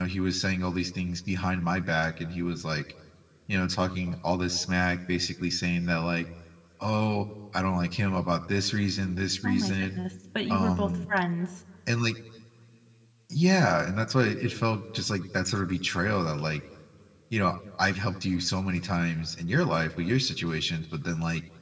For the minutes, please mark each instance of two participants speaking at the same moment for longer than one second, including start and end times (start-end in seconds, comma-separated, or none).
none